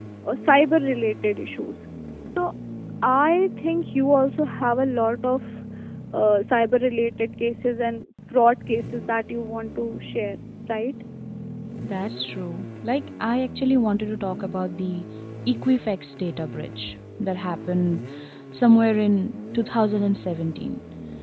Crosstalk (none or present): none